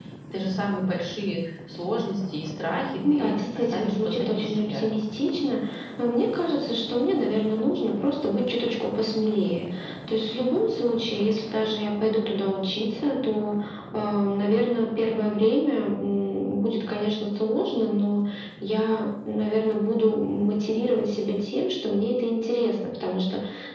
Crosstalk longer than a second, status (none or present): present